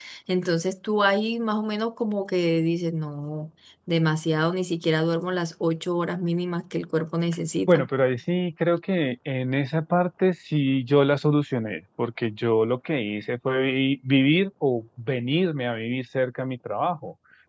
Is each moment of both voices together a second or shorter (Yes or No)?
Yes